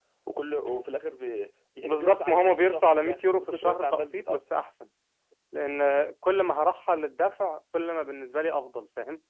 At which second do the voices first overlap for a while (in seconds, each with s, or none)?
1.9 s